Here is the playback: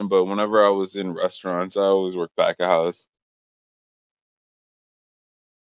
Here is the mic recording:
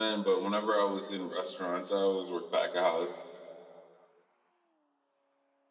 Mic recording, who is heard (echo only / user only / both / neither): echo only